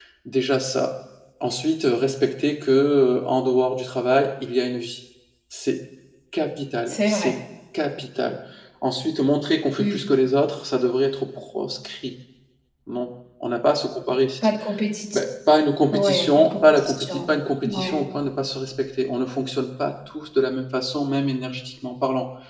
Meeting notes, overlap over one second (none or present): present